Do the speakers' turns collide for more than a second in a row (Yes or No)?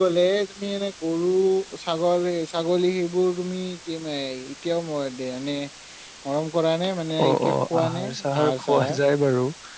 Yes